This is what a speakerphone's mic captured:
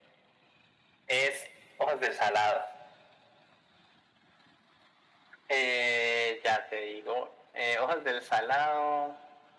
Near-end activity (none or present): none